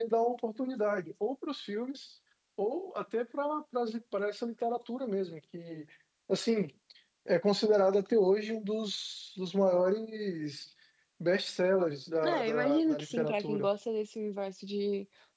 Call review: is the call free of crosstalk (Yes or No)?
No